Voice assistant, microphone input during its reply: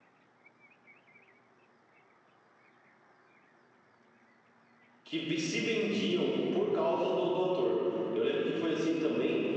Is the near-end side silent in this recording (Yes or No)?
No